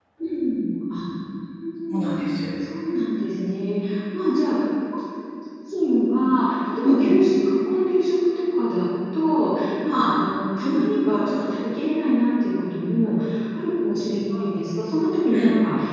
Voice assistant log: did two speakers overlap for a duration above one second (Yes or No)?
No